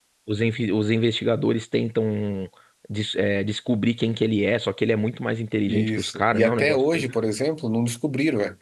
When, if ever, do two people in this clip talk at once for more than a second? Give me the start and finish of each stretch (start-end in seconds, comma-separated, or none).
5.7-7.0